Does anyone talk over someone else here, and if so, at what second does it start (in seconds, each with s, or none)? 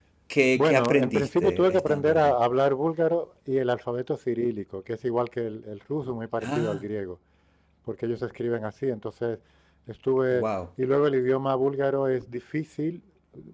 0.6 s